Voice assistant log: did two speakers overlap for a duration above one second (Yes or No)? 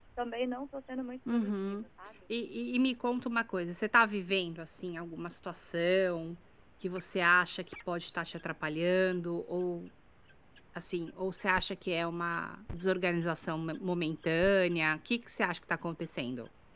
No